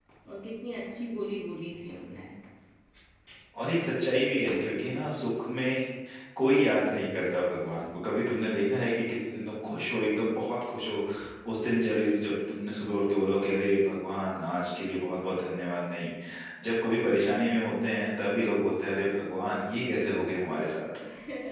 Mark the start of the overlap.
none

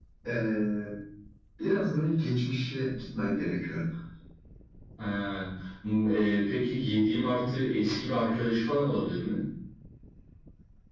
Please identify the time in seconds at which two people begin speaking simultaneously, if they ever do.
none

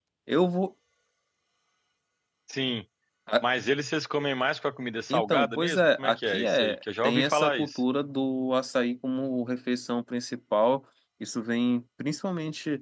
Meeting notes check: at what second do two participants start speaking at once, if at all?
5.1 s

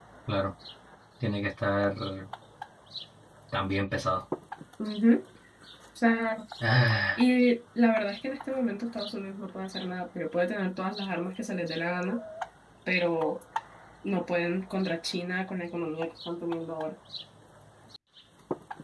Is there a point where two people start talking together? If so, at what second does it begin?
none

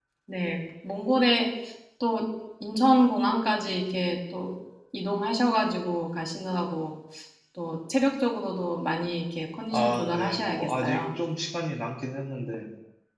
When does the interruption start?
9.7 s

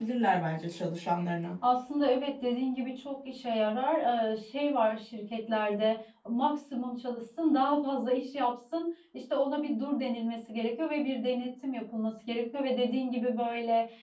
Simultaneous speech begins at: none

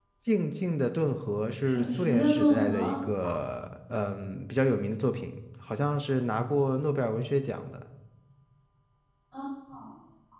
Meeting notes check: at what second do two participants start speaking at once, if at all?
1.6 s

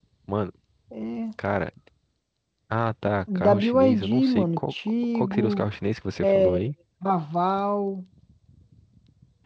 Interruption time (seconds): 3.4 s

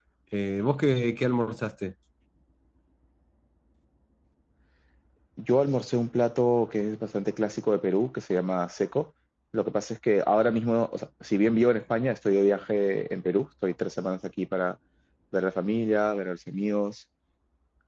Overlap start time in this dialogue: none

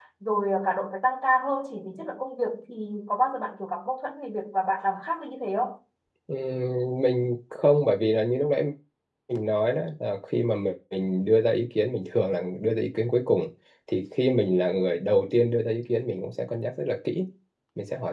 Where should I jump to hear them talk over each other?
none

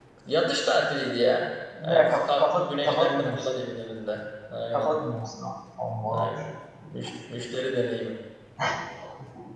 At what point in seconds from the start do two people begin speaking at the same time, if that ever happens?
1.9 s

